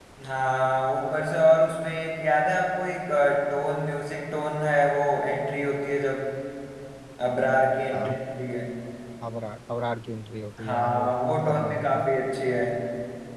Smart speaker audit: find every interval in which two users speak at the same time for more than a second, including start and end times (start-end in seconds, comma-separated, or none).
10.7-12.1